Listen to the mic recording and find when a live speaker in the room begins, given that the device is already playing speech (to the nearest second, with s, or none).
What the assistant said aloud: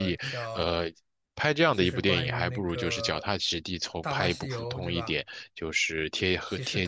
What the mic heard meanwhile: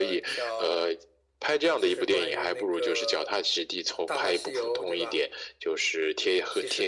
none